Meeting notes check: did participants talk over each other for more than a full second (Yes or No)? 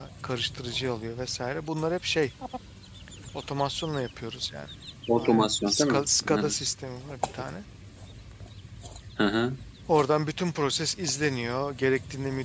Yes